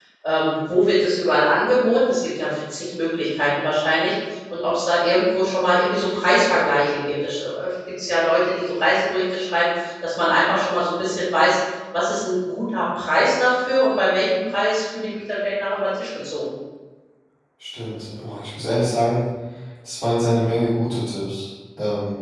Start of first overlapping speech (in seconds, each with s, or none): none